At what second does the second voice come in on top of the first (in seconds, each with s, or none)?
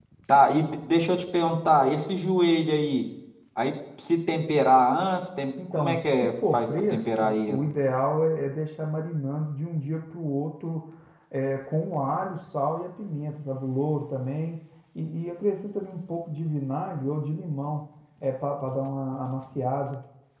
5.6 s